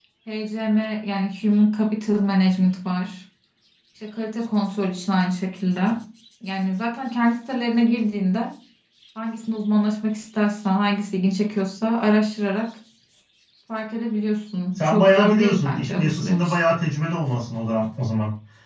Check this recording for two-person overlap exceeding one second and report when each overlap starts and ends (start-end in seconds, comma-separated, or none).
14.8-16.6